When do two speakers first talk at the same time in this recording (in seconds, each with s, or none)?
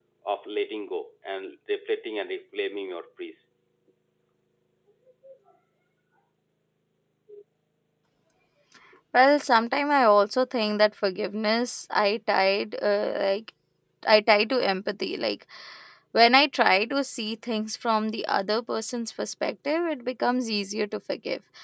none